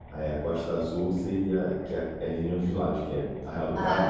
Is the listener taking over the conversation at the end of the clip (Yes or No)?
No